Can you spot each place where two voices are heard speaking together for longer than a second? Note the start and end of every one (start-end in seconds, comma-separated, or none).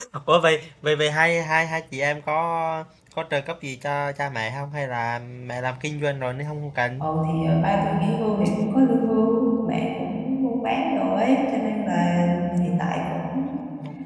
none